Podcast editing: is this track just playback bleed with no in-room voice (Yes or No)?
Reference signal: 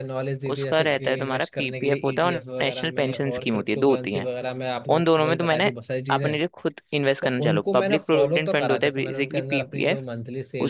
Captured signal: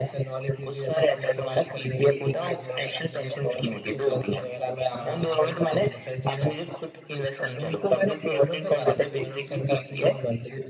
No